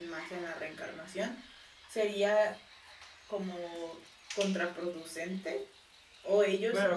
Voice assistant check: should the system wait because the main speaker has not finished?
No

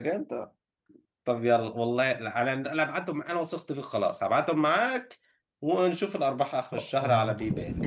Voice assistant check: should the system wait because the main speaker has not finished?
No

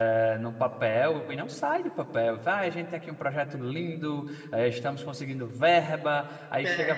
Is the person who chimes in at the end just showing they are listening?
Yes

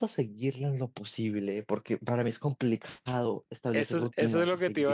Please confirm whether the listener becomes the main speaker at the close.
Yes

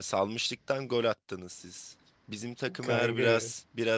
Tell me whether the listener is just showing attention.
Yes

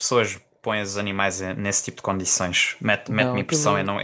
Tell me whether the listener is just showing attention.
Yes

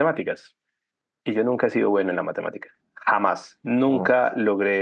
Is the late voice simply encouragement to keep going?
Yes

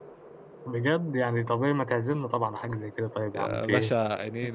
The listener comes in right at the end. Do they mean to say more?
Yes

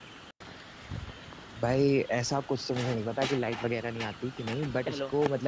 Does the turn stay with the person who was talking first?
Yes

